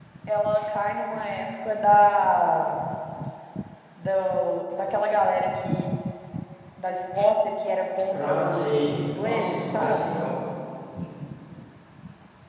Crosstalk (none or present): present